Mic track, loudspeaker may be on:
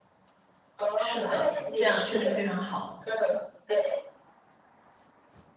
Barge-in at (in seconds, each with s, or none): 0.9 s